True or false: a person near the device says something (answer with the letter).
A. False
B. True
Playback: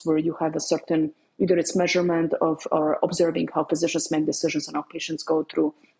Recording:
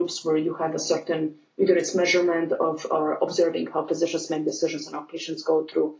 A